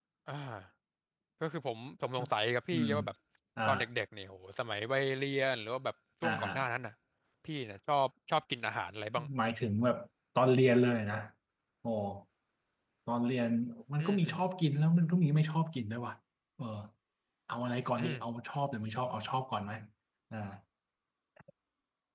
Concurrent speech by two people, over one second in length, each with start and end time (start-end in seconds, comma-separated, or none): none